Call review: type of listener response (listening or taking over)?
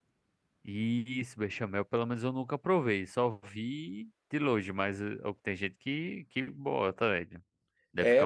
taking over